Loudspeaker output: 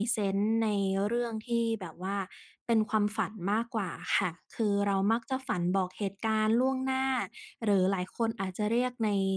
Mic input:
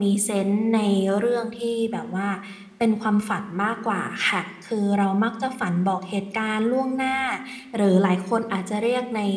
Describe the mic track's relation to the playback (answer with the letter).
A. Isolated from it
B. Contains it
B